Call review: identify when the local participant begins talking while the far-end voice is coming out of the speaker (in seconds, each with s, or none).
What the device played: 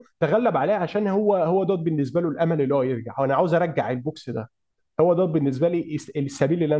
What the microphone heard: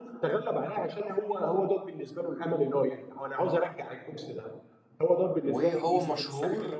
5.4 s